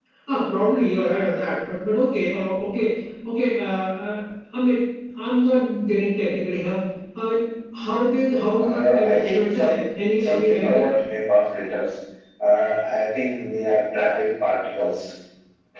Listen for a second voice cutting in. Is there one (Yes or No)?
Yes